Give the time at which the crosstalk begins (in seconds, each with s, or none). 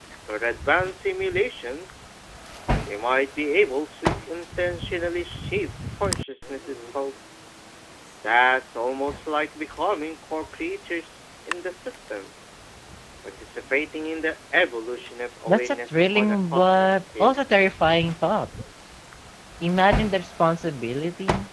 15.5 s